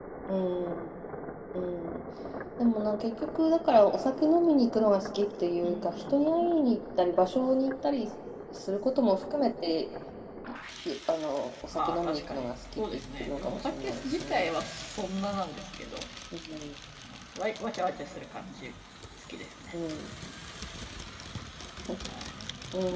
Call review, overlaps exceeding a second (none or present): present